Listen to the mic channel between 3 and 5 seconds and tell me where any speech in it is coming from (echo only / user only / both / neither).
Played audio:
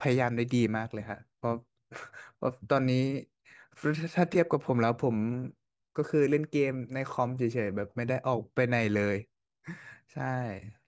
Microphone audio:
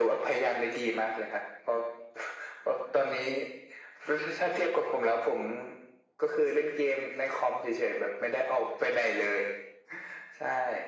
echo only